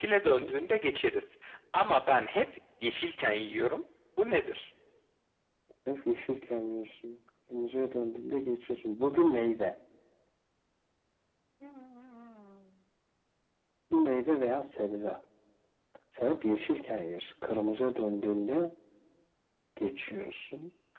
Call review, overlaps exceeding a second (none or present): none